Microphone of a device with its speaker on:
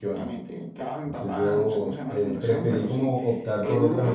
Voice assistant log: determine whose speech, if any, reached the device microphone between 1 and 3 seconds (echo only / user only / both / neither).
both